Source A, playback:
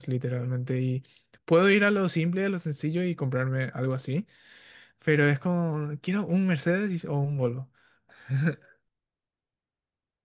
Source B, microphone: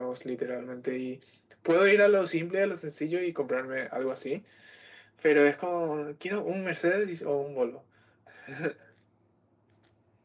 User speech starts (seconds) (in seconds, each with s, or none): none